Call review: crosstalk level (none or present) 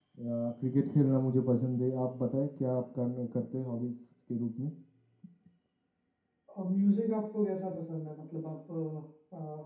none